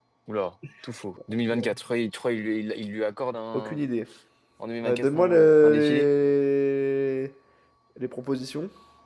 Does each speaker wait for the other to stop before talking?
No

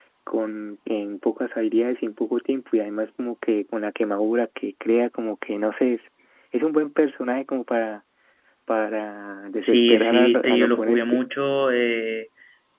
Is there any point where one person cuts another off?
Yes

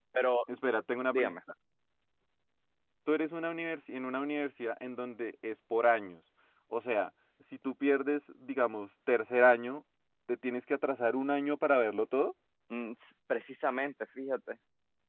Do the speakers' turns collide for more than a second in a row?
No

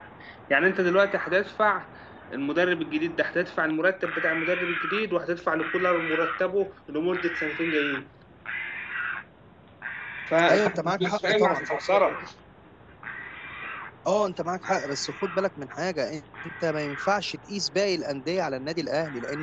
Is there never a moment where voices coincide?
No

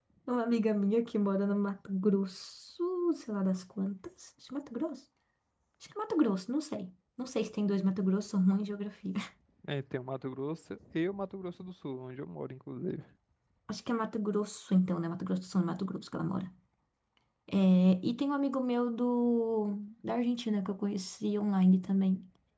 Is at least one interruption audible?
No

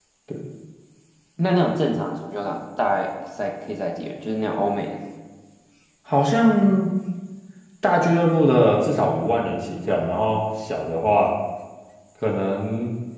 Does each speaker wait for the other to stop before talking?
Yes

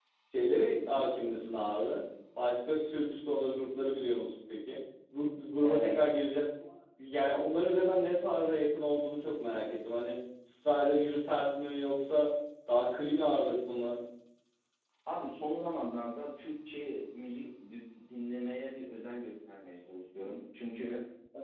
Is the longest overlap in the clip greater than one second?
No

